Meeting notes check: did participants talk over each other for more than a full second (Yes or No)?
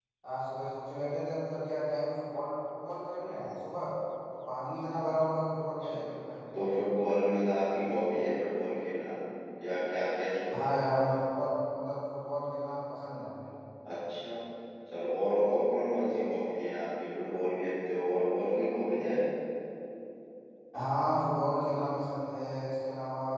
No